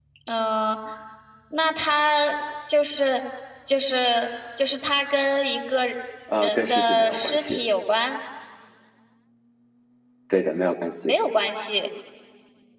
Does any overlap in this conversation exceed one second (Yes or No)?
Yes